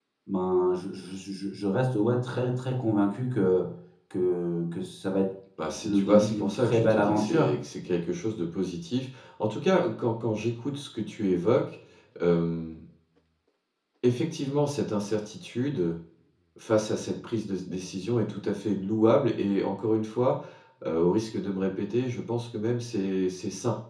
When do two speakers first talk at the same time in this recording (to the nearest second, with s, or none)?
6 s